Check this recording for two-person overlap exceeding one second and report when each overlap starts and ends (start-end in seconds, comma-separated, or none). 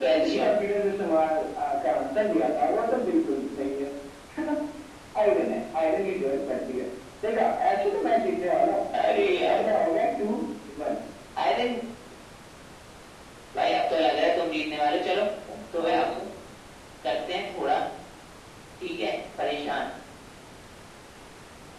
none